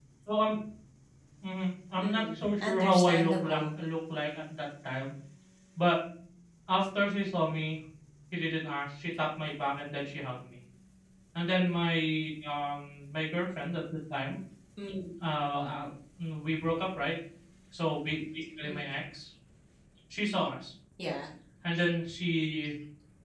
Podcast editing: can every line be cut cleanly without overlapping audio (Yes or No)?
No